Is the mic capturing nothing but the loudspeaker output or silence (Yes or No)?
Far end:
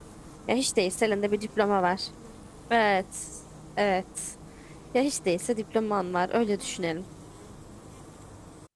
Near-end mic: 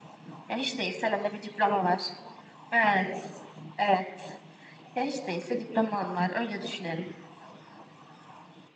Yes